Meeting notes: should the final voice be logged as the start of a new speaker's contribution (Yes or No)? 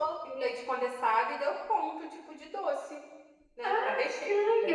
Yes